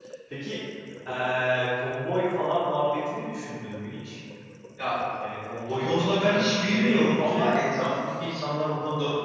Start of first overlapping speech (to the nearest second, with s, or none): 6 s